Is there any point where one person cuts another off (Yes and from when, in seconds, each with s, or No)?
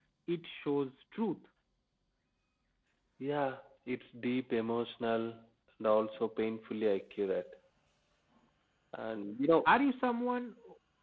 No